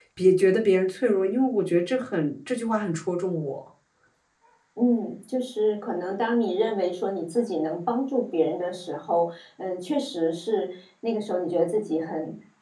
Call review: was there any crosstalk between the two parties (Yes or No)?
No